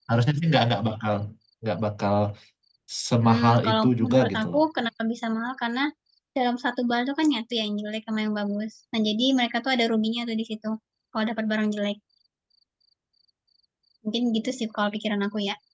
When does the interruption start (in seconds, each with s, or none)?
3.2 s